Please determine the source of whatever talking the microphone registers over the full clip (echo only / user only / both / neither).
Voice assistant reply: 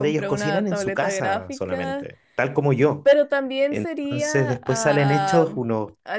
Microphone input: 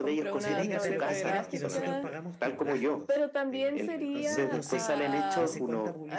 both